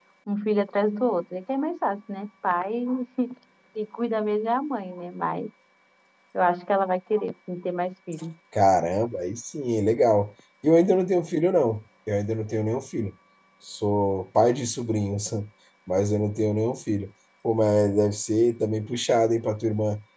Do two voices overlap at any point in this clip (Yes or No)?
No